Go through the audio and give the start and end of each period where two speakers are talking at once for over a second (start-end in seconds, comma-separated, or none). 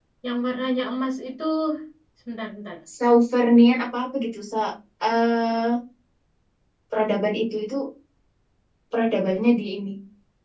none